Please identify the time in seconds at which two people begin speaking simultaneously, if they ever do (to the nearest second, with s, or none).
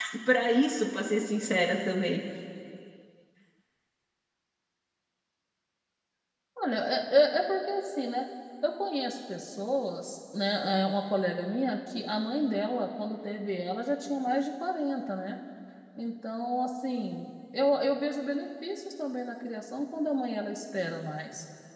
none